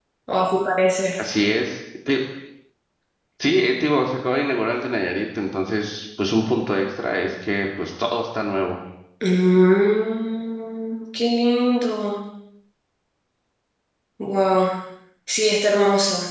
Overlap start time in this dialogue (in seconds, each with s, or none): none